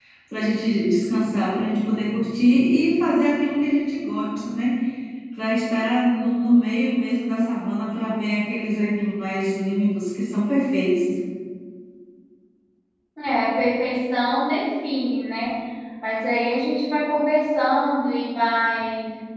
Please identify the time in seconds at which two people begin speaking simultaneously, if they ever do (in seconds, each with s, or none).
none